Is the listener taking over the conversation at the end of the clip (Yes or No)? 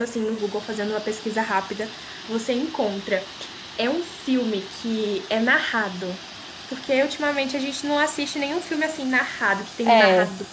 No